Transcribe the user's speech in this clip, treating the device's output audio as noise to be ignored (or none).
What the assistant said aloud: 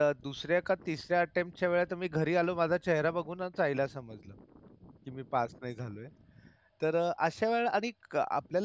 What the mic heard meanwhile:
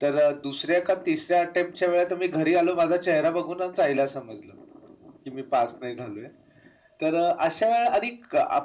none